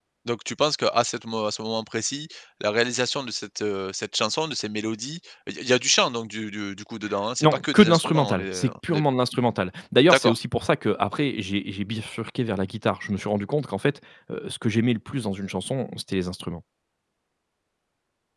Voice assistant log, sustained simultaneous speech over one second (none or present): present